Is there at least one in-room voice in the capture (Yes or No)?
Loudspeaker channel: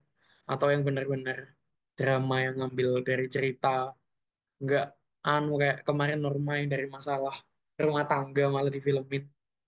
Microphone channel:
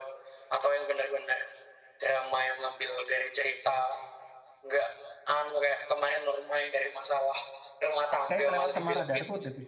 Yes